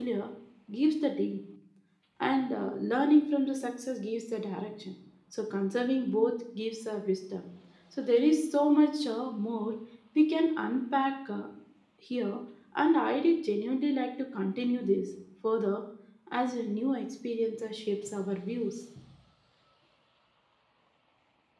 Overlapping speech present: No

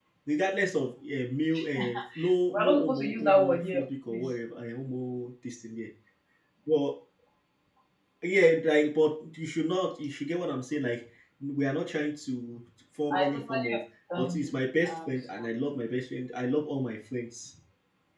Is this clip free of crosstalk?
No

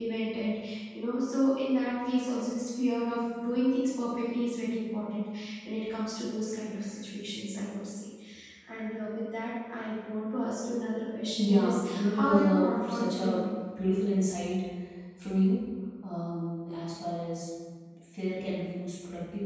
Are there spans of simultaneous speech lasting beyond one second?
Yes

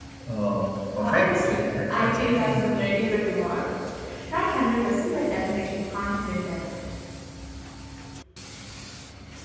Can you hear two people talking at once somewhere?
Yes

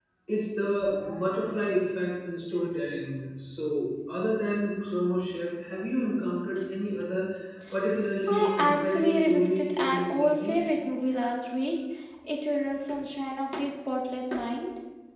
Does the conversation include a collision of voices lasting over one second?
Yes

